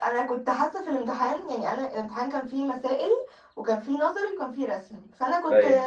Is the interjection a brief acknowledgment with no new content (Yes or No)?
Yes